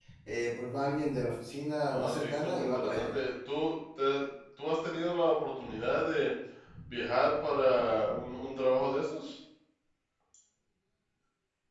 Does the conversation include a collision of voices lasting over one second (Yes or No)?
Yes